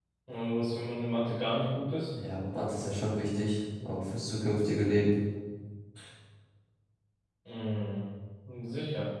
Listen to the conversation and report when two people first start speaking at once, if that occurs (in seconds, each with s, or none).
none